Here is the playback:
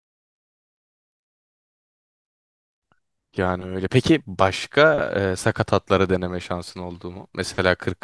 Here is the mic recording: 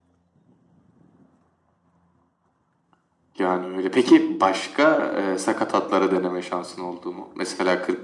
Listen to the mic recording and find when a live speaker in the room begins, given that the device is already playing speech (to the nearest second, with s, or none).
none